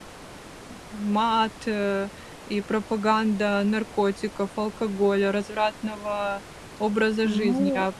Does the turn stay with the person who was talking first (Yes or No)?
No